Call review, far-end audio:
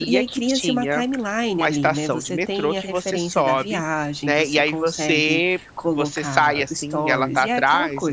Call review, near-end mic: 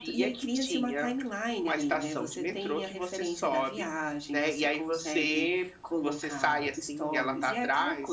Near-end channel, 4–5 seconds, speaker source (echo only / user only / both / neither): echo only